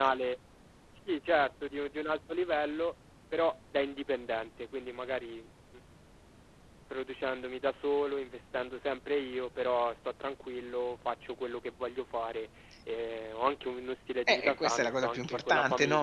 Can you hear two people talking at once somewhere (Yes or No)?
Yes